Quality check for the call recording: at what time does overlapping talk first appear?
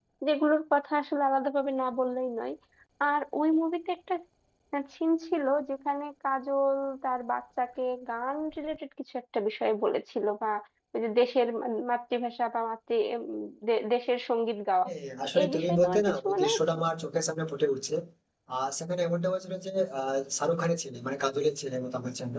15 s

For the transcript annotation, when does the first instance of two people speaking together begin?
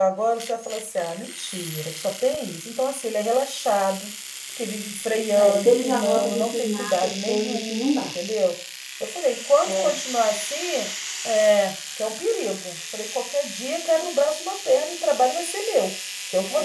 5 s

